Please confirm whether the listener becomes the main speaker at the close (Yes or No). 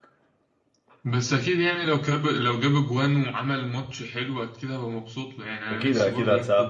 Yes